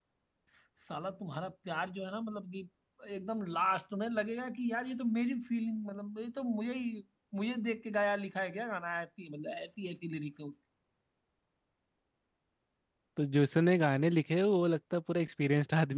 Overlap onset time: none

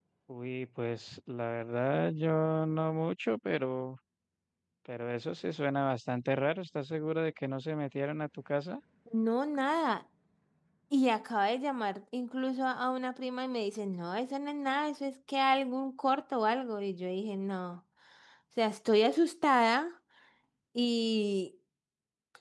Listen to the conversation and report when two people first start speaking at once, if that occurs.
none

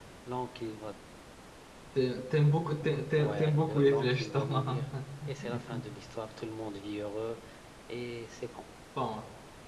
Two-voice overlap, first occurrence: 3.2 s

